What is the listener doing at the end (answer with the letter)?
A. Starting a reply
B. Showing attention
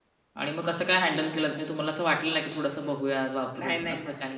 A